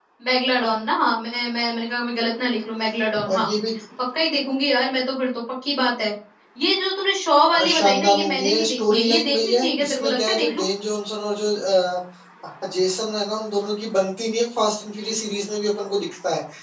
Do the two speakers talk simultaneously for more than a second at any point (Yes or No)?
Yes